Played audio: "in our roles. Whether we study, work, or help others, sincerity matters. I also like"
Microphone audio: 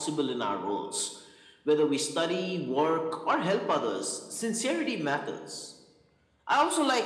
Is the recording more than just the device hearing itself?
No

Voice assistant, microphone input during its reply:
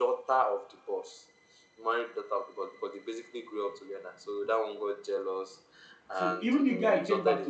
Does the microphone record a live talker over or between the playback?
Yes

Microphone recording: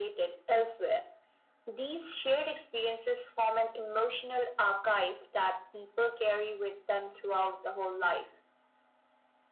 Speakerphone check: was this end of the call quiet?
Yes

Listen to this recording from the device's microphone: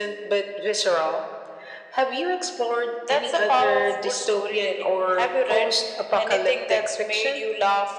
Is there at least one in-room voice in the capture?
No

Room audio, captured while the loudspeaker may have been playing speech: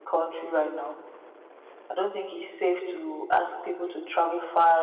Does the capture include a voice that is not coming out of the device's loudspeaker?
Yes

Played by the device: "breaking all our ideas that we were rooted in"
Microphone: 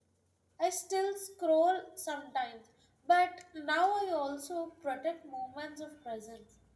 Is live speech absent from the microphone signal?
No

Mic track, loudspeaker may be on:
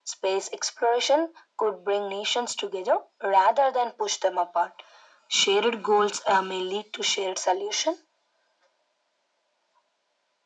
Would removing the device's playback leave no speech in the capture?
Yes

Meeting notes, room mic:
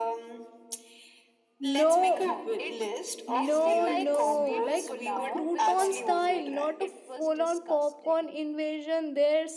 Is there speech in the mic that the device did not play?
Yes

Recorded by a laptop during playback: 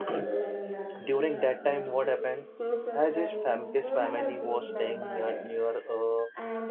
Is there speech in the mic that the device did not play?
Yes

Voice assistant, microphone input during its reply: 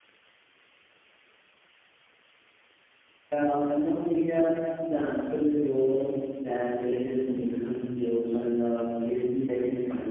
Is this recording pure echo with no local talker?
No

